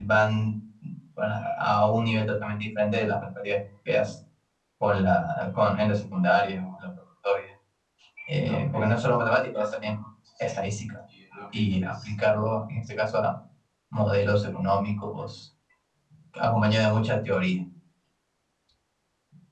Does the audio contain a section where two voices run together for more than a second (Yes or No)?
No